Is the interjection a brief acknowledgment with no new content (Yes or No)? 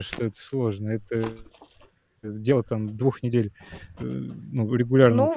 No